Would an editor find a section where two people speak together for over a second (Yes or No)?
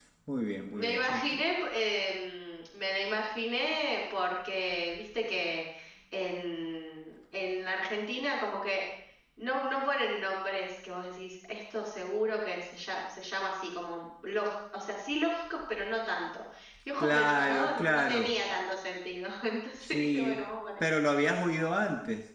Yes